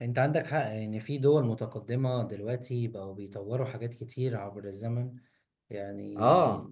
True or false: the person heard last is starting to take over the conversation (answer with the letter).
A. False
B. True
A